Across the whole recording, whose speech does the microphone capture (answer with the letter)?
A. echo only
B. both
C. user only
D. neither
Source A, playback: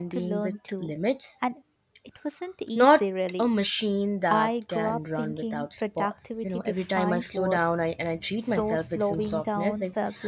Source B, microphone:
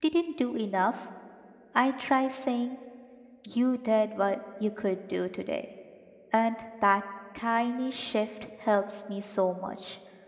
C